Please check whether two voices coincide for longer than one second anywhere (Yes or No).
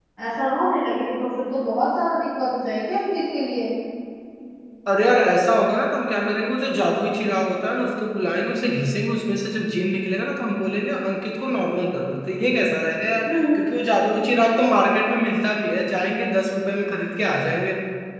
No